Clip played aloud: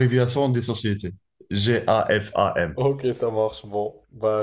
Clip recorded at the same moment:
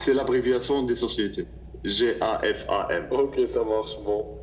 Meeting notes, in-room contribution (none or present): none